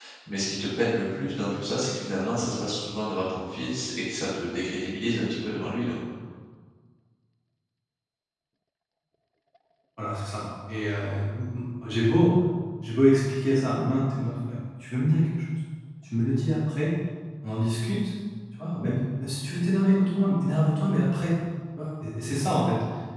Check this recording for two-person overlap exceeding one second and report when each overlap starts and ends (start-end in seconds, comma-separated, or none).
none